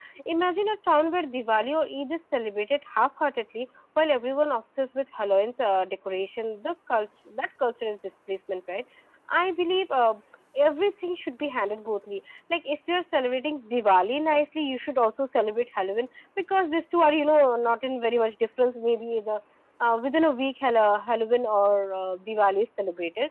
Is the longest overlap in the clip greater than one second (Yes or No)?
No